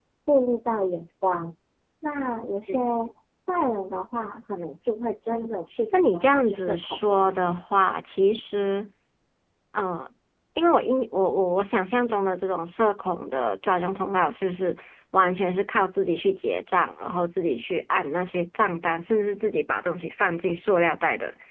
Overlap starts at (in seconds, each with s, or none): 5.9 s